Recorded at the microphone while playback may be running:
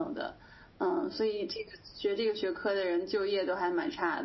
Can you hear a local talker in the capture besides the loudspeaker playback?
No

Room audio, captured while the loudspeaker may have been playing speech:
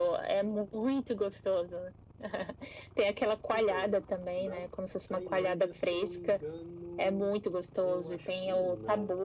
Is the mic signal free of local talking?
No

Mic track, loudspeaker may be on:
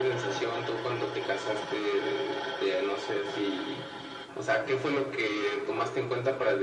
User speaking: No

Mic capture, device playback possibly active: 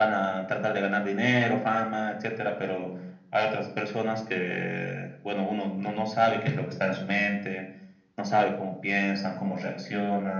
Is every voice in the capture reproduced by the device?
Yes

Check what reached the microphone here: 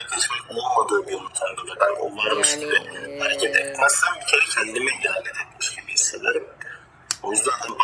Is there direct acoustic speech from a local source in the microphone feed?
Yes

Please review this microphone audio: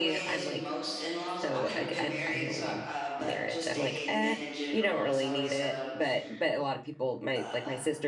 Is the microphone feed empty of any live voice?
No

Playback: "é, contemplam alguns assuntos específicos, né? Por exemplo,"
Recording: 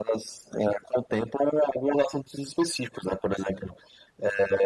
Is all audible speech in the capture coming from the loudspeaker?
Yes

